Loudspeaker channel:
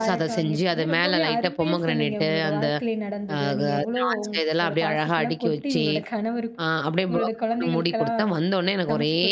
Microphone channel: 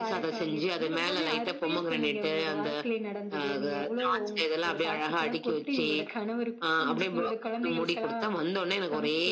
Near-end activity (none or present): present